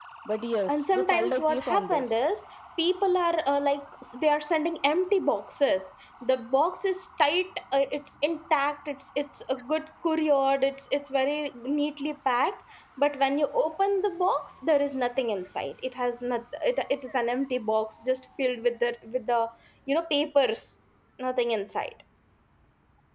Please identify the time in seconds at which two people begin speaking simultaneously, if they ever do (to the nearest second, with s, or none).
1 s